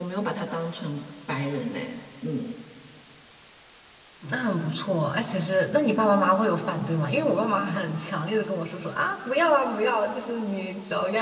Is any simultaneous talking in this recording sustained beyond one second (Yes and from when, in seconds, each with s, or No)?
No